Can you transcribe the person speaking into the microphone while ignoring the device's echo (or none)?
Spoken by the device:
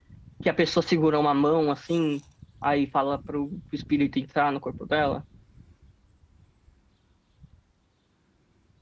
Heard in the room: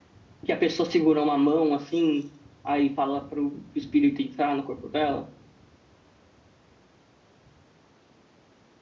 none